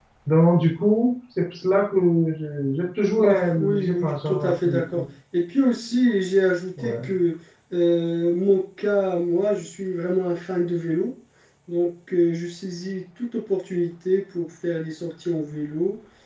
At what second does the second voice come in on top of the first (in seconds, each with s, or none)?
3.2 s